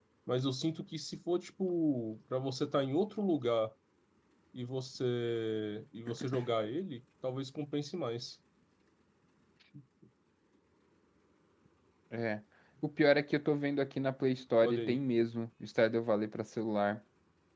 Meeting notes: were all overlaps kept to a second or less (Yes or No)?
Yes